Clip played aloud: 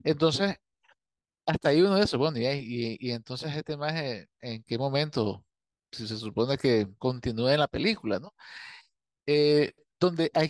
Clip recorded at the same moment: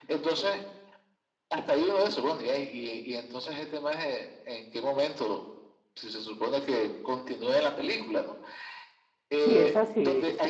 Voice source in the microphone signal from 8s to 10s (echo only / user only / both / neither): both